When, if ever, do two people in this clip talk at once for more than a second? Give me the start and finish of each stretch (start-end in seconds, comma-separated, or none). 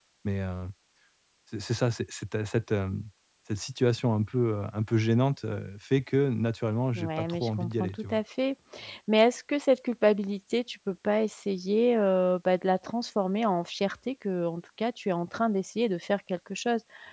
7.0-8.2